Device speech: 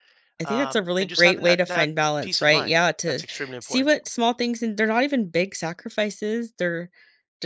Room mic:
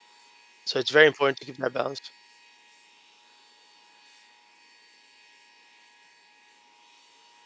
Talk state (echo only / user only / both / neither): user only